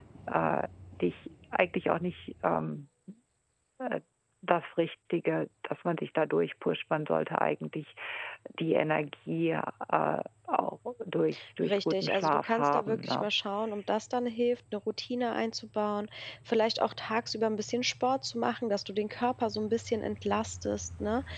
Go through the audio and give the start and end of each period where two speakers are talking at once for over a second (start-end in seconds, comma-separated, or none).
11.7-13.3